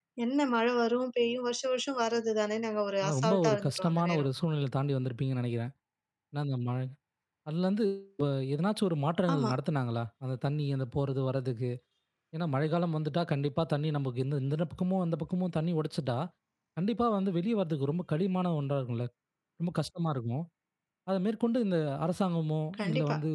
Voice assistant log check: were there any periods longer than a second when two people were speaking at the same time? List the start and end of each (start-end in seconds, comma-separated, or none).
3.0-4.3